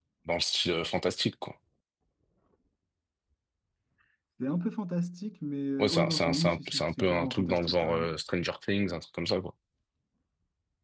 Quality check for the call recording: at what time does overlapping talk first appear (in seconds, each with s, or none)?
5.8 s